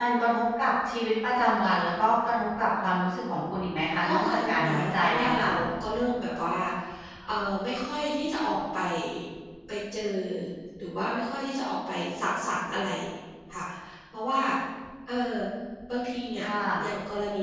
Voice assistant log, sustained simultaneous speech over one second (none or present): present